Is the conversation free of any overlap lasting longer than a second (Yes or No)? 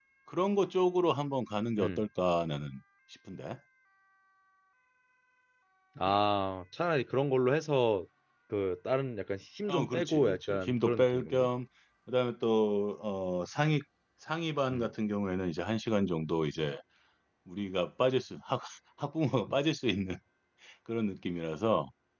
No